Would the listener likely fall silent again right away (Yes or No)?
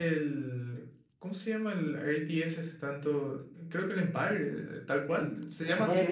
No